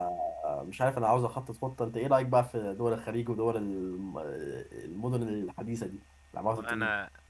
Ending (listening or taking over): taking over